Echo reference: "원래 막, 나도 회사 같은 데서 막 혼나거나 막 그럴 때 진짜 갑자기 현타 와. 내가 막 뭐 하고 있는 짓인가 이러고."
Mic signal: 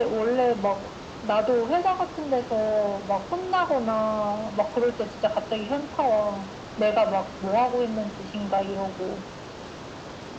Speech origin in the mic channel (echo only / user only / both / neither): echo only